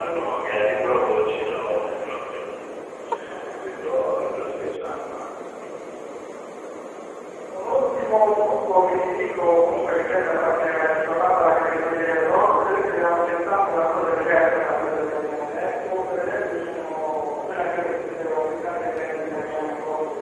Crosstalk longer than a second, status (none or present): none